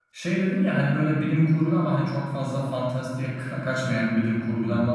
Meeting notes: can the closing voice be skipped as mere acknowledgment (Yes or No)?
Yes